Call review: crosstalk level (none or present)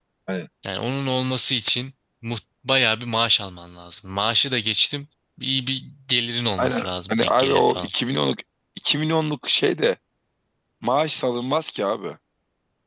present